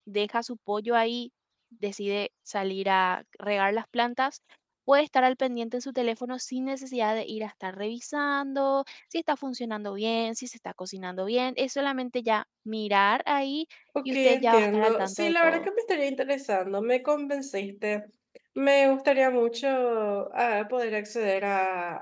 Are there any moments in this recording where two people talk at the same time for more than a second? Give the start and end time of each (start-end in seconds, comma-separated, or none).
14.0-15.7